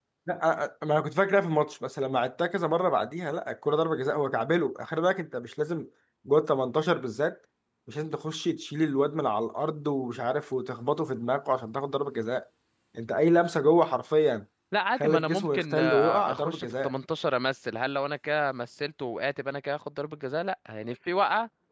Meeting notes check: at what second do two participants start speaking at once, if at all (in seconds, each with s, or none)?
14.9 s